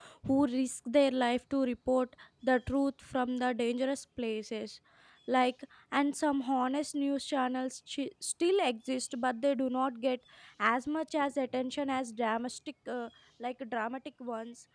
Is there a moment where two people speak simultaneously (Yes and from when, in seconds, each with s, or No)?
No